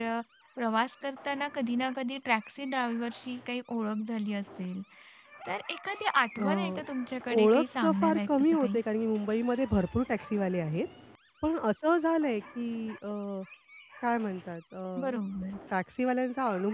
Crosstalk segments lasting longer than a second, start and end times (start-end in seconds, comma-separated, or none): 7.4-8.8